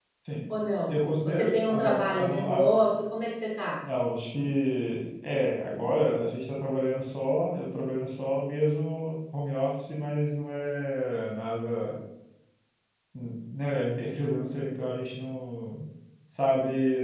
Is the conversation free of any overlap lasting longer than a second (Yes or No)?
No